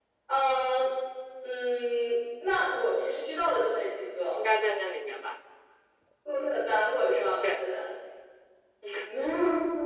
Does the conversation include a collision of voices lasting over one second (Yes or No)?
No